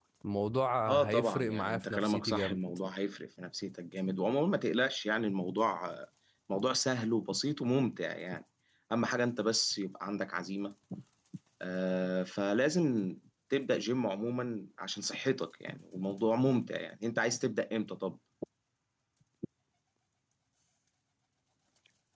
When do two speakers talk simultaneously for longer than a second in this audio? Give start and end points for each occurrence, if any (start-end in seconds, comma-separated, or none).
0.9-2.6